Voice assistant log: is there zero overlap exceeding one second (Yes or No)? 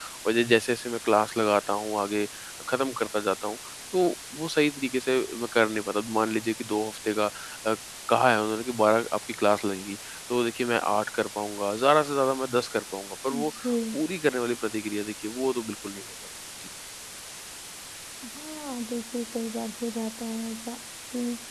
Yes